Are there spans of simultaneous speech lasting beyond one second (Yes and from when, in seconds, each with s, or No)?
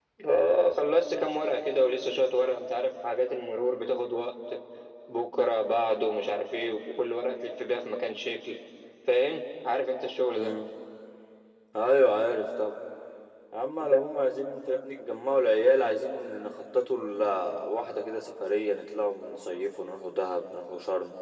No